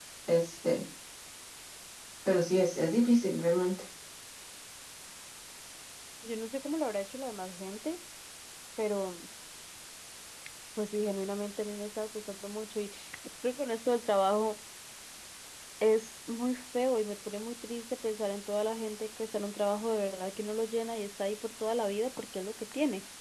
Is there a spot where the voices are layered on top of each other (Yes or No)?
No